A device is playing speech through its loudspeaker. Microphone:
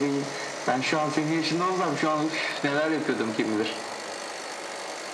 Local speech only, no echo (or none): none